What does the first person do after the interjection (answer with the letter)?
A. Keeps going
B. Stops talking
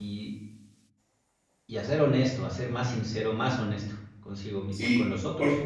B